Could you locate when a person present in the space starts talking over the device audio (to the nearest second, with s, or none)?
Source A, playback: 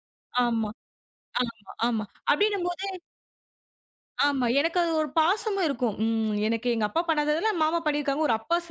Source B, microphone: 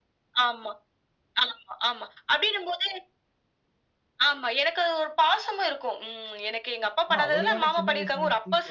7 s